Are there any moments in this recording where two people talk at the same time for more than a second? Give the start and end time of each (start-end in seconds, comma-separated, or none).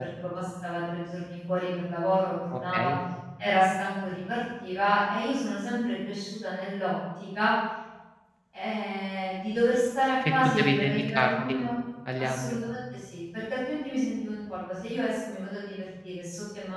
10.3-11.6